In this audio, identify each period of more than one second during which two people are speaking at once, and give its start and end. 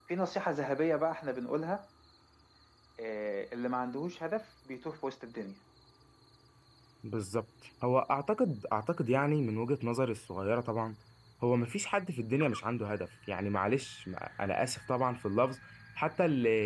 none

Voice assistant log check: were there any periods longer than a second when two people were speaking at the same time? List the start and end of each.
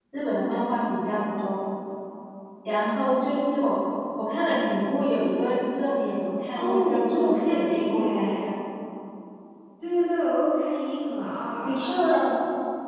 6.5-8.5

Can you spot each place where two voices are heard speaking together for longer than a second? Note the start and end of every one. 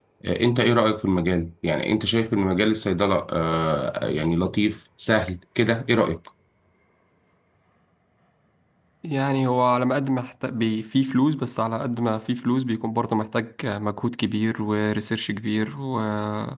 none

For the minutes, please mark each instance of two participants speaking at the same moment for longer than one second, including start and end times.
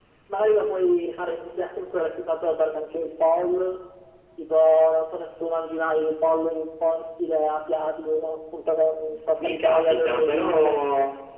9.4-10.8

